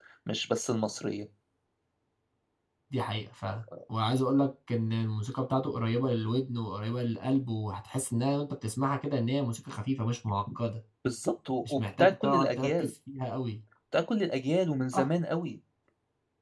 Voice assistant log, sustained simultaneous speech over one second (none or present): present